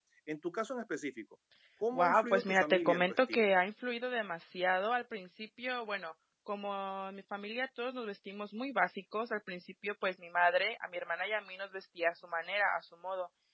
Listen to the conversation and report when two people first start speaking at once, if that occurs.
1.9 s

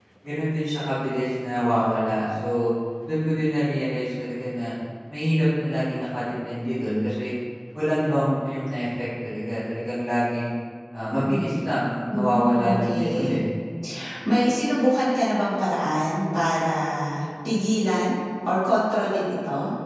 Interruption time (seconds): 12.1 s

